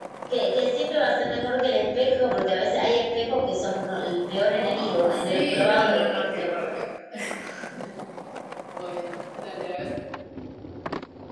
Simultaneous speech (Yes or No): Yes